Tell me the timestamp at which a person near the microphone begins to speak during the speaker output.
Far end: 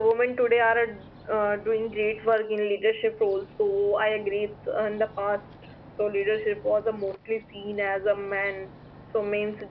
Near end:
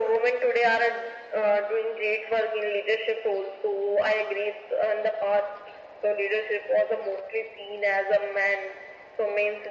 none

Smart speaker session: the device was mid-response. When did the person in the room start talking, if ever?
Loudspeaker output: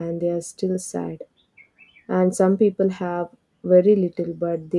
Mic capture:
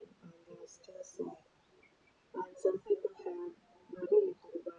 none

